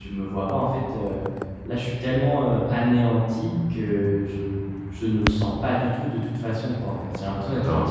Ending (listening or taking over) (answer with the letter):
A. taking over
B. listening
B